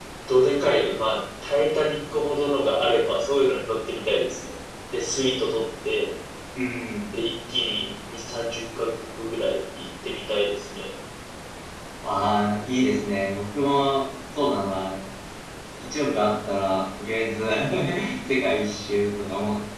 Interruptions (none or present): none